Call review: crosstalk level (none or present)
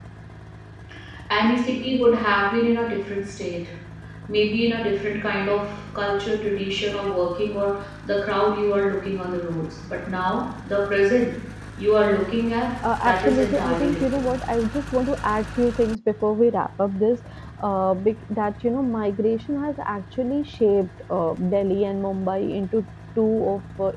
present